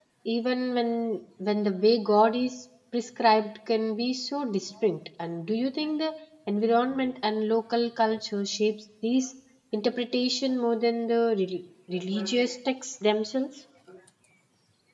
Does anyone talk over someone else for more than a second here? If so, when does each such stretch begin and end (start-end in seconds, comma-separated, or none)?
none